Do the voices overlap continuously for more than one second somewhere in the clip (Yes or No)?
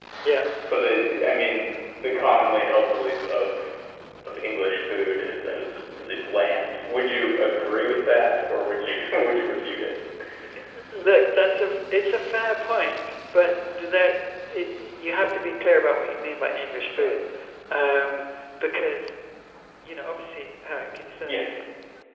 No